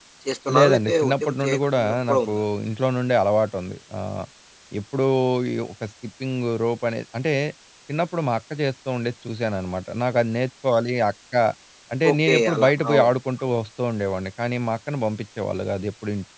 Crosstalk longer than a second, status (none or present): present